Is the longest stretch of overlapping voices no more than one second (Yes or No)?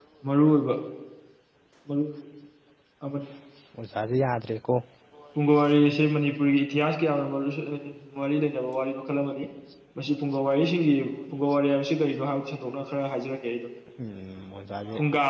Yes